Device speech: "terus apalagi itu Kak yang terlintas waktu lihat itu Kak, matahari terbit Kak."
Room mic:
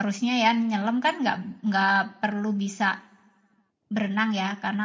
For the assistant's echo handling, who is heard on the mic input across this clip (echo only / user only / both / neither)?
user only